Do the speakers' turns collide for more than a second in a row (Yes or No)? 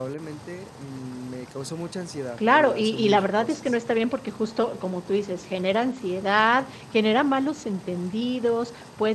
Yes